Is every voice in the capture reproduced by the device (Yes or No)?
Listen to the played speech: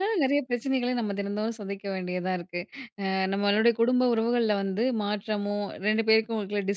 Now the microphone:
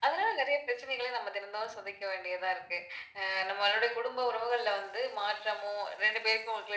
Yes